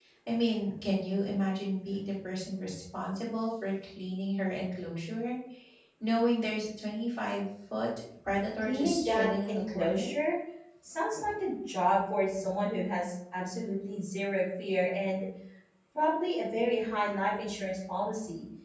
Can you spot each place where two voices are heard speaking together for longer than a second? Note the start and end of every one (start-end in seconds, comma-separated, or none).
8.6-10.1